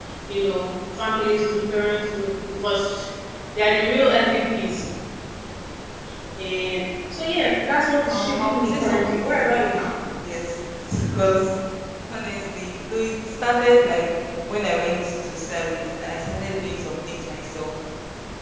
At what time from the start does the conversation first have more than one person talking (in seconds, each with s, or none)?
8.1 s